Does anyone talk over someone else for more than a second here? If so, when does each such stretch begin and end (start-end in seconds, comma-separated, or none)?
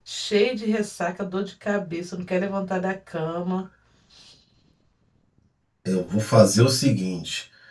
none